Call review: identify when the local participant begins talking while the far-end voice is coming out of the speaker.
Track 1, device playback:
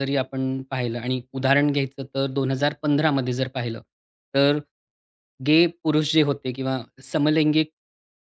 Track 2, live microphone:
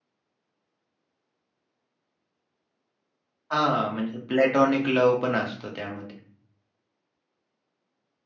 3.5 s

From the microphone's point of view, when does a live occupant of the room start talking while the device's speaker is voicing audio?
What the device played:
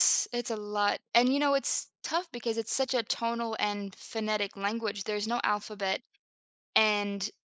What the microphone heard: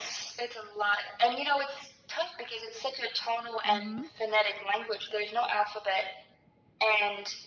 3.6 s

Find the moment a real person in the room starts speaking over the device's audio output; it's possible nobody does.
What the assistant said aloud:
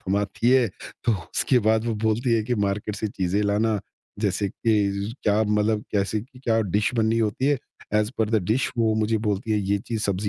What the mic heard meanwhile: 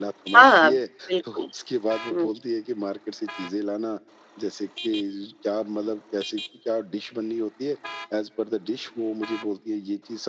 0.3 s

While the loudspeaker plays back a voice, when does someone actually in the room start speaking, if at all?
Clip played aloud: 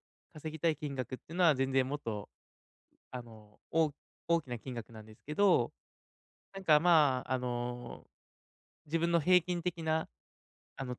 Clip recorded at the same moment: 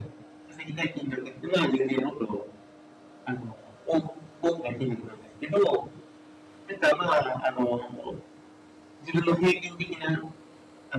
none

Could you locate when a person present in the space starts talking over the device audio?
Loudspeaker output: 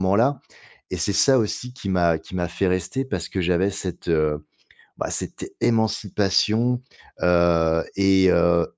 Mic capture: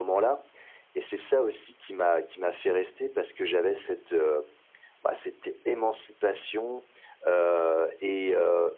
none

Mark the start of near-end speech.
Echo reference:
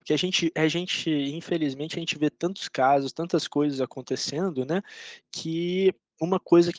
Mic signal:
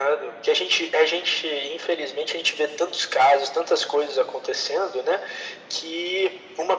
none

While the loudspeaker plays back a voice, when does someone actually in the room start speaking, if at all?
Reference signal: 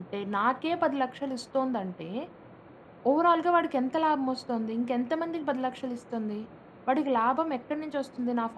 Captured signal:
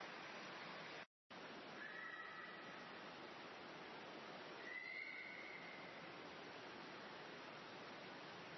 none

